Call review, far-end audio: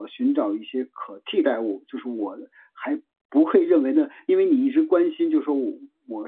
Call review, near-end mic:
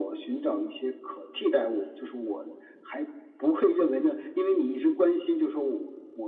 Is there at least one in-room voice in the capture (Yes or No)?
No